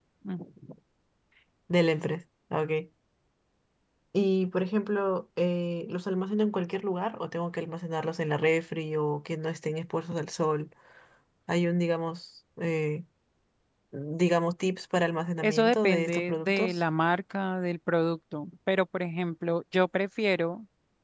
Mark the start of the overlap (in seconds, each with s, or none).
15.4 s